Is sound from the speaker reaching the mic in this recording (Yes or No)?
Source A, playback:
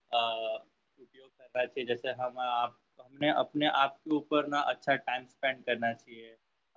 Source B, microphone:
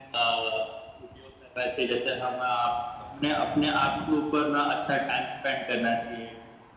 Yes